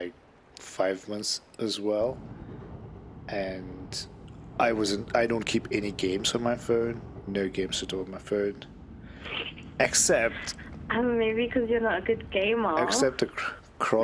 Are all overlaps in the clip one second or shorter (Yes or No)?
Yes